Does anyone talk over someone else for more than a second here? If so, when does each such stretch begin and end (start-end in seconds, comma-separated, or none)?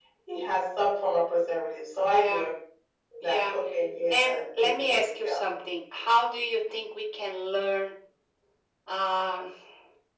4.1-5.3